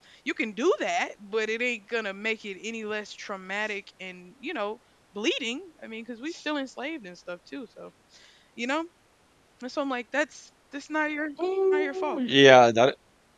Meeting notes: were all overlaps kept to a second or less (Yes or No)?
Yes